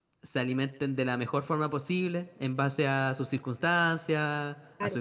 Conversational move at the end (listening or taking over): listening